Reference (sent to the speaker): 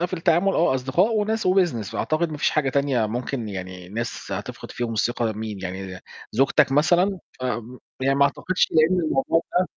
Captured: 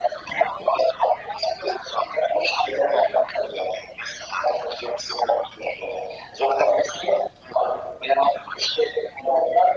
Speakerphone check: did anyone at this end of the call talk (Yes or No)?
No